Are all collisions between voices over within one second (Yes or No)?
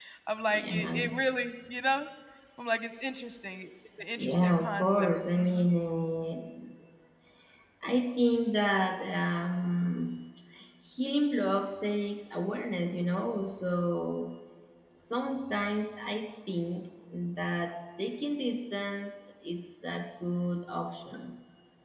No